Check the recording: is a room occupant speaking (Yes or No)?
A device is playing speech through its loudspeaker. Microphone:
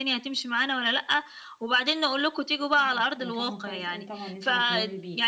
Yes